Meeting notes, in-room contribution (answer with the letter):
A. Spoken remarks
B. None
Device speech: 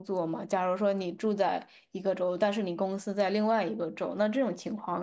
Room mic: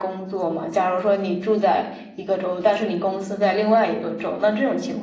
B